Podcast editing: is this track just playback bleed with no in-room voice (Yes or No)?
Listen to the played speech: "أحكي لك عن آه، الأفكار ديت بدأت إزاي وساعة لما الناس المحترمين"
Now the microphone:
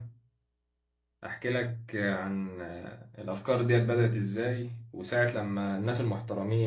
Yes